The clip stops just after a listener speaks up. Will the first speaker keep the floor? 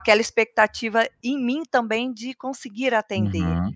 No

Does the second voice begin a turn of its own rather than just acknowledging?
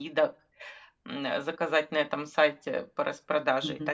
Yes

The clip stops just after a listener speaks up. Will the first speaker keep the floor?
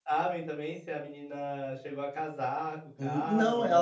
No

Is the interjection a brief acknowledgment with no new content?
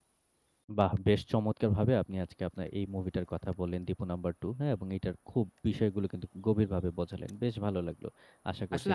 No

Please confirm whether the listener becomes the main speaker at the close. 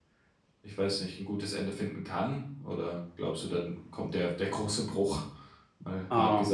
Yes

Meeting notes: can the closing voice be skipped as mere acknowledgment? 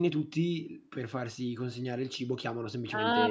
No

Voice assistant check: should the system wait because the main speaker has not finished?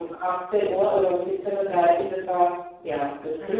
No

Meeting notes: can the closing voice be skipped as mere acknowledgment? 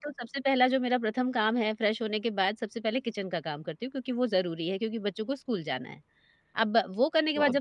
Yes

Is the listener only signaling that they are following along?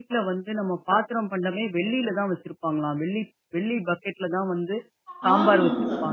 No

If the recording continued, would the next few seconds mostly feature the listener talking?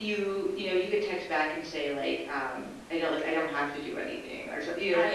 No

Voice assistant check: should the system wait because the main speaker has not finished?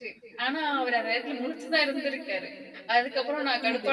Yes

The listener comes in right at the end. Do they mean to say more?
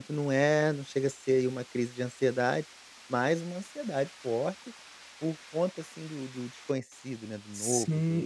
Yes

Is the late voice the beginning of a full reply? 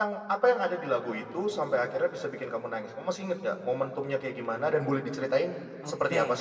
Yes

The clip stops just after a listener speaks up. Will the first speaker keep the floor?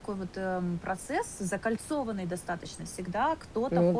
Yes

